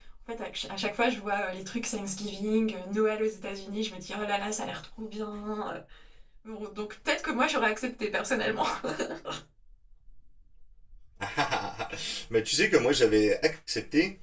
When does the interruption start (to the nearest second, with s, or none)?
none